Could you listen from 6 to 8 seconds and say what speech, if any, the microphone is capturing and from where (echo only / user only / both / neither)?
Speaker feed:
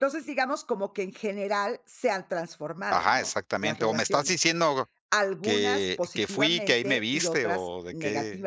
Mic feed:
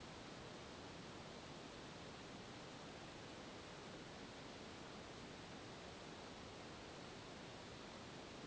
neither